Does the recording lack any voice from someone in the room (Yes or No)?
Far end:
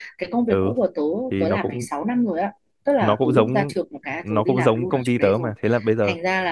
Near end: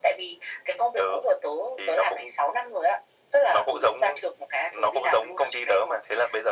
Yes